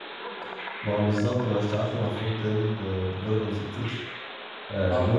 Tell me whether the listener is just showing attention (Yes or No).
Yes